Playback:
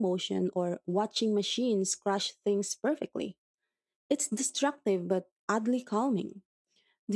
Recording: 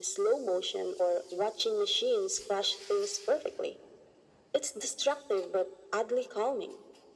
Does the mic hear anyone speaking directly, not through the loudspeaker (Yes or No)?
No